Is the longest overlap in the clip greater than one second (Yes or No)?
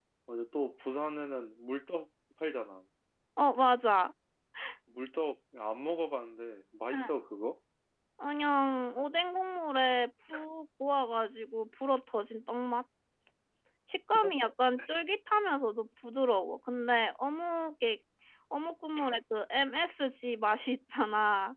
No